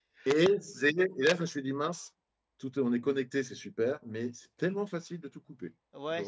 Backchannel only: No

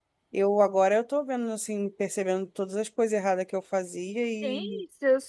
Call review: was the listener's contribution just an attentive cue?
No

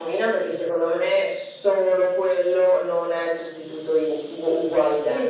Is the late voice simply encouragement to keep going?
No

